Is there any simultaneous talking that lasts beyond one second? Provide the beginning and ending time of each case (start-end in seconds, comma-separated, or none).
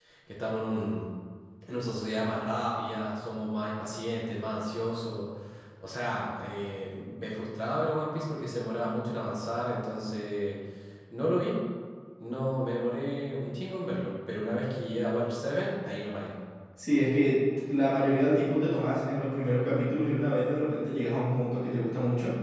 none